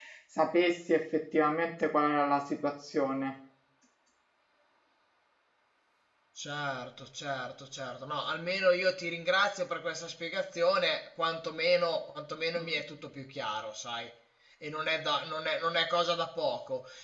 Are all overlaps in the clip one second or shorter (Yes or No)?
Yes